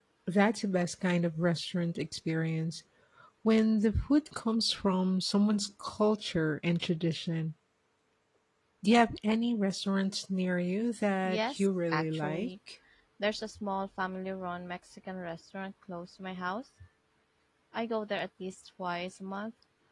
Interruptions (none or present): present